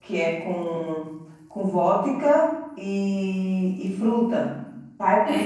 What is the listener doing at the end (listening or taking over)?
taking over